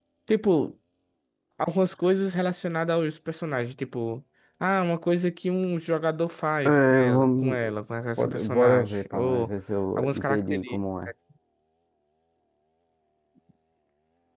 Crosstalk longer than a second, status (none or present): present